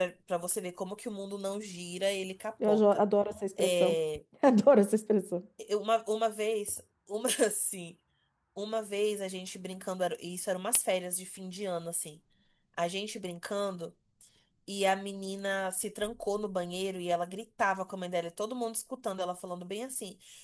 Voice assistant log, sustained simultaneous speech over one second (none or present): none